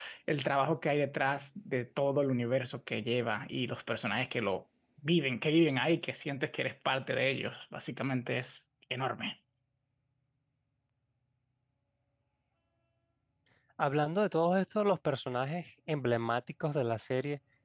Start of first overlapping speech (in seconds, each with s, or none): none